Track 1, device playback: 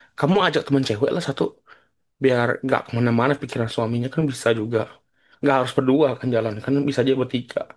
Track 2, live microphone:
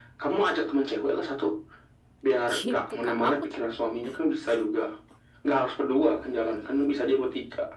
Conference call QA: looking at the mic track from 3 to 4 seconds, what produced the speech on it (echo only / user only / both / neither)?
both